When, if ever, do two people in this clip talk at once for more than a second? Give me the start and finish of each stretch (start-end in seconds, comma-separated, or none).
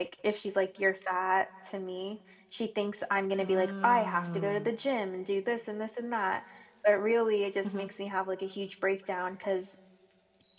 3.4-4.7